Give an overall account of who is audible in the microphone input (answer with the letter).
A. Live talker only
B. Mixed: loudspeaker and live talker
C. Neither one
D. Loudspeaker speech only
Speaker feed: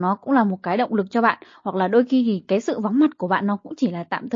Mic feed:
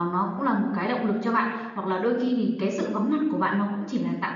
D